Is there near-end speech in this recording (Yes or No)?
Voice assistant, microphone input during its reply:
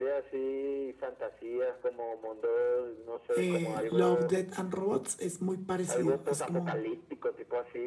Yes